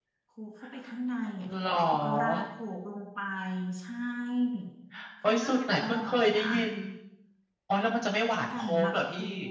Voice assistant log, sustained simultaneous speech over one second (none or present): present